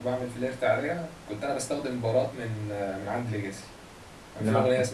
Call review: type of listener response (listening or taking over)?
listening